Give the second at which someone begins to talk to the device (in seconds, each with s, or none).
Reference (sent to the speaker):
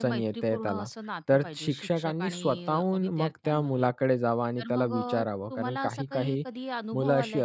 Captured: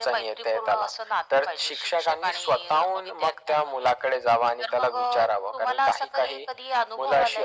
none